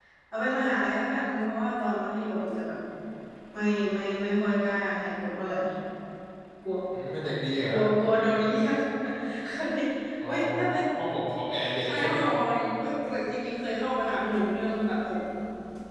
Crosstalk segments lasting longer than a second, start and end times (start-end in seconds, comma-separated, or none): none